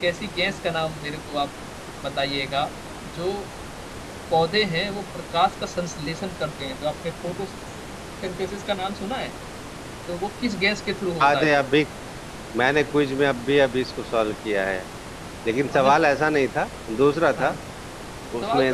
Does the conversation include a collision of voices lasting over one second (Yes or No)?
No